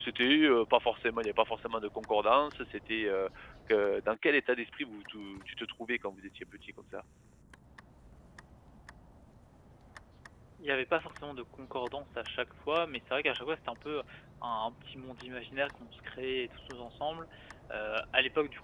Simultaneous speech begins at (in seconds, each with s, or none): none